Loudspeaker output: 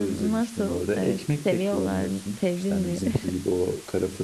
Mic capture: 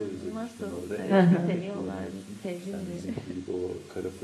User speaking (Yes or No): Yes